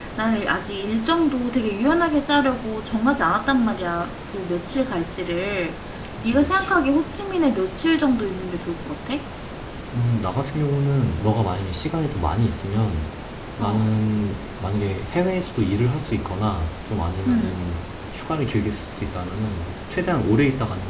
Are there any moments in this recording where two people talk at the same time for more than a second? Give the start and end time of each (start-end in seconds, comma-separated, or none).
none